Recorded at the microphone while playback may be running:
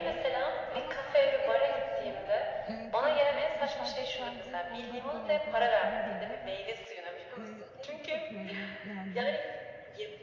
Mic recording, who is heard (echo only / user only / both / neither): both